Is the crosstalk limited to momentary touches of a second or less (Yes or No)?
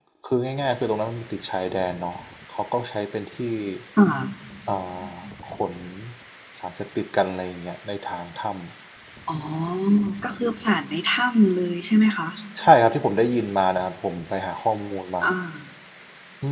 Yes